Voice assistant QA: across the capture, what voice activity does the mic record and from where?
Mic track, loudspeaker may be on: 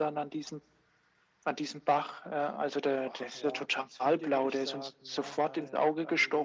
both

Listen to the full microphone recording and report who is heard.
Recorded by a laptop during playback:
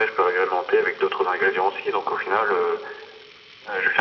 echo only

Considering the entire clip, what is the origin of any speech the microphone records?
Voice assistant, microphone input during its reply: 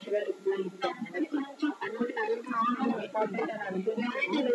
echo only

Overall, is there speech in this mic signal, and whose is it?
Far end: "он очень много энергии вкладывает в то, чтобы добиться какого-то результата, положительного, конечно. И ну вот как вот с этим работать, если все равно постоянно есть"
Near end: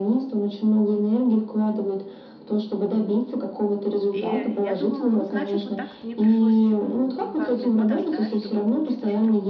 both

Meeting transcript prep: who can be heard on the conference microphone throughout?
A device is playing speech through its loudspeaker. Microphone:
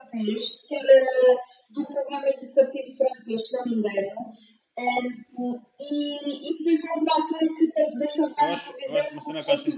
both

